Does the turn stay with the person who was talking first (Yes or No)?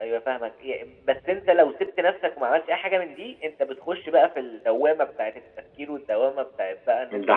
Yes